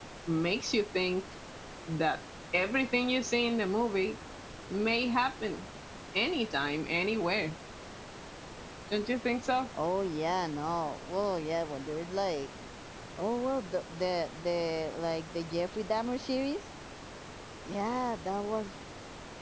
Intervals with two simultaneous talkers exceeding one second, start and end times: none

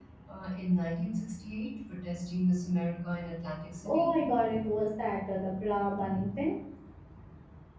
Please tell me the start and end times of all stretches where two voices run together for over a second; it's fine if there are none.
none

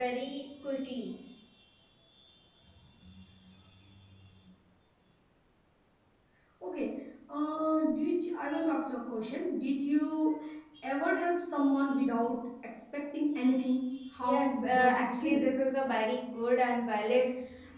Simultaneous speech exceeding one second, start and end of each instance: 14.2-15.5

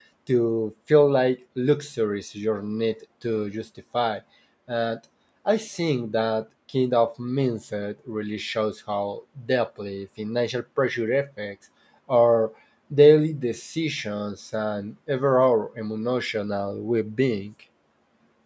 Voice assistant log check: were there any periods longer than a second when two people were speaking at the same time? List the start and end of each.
none

